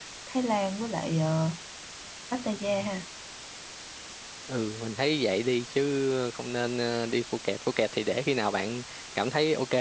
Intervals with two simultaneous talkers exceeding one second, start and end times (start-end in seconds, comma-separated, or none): none